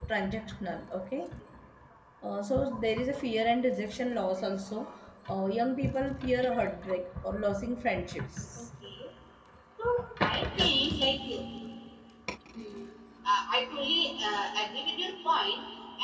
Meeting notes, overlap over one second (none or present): none